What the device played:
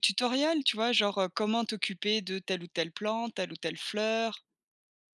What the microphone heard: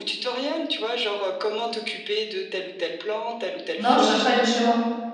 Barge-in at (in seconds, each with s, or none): 3.8 s